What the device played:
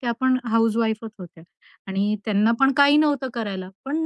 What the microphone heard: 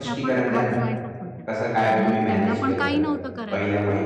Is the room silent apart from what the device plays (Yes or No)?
No